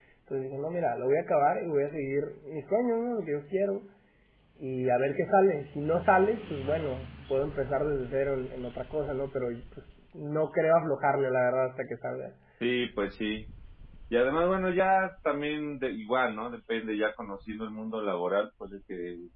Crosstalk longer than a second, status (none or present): none